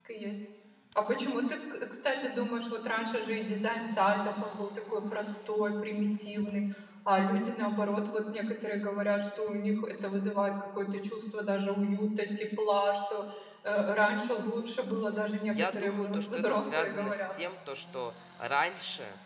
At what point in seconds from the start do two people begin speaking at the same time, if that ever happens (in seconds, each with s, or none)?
15.5 s